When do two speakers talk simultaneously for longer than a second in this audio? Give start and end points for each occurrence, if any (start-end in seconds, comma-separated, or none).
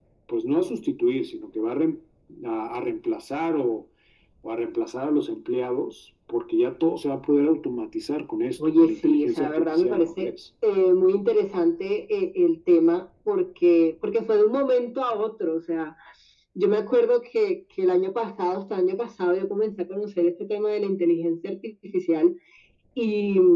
8.6-10.3